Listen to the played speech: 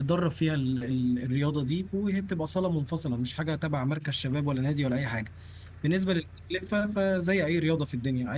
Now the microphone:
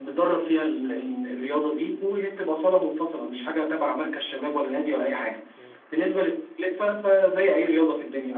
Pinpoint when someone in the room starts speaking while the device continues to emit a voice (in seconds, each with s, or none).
4.7 s